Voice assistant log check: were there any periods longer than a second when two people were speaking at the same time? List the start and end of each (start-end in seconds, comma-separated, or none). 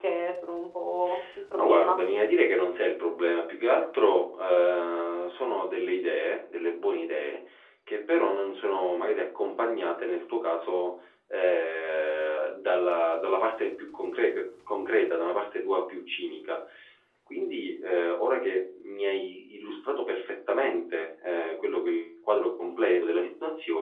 none